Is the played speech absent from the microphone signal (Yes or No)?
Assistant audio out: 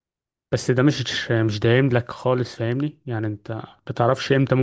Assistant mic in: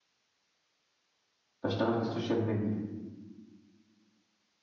Yes